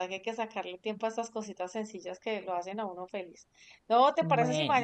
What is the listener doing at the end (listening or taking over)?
listening